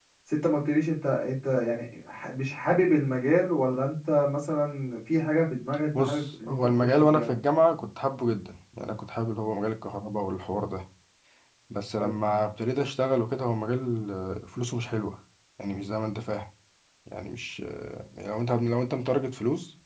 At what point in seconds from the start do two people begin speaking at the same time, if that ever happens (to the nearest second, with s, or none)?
6 s